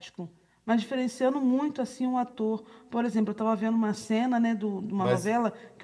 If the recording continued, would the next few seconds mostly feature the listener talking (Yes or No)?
No